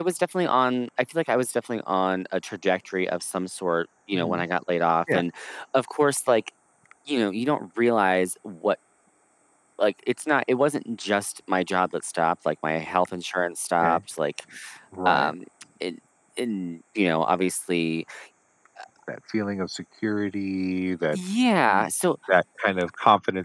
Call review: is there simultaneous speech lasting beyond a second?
No

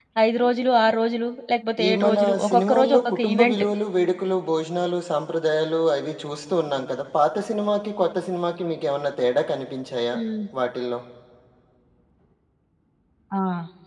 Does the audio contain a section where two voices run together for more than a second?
Yes, from 1.8 s

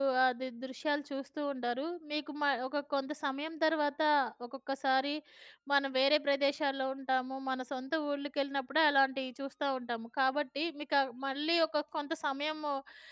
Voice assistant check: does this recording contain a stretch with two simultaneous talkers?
No

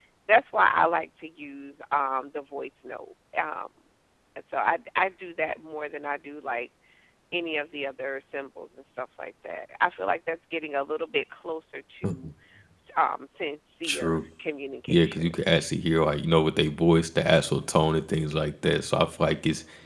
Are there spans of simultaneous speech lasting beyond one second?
No

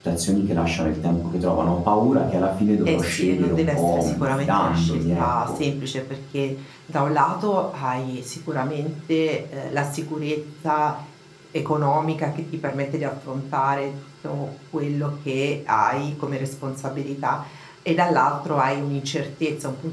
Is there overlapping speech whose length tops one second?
Yes, from 2.9 s

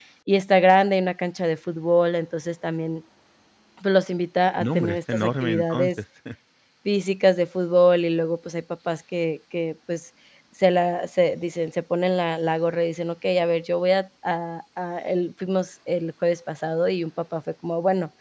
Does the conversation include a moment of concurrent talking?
Yes, from 4.6 s

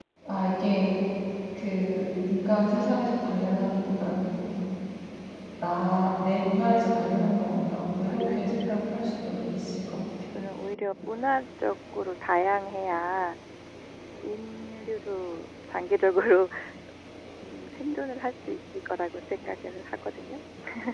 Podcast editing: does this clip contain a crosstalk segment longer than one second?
Yes, from 7.5 s

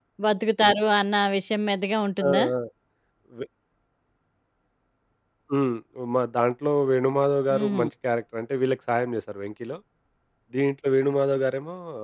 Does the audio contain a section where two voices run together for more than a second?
No

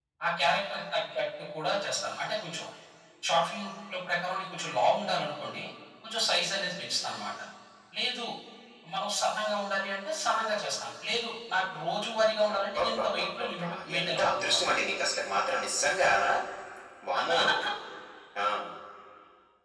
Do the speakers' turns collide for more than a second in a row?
Yes, from 12.6 s

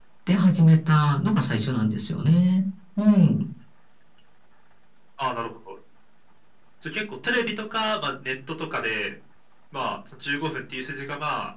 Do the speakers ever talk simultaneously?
No

